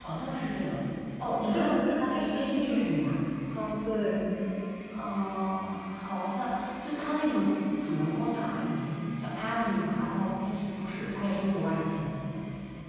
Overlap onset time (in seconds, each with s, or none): 1.4 s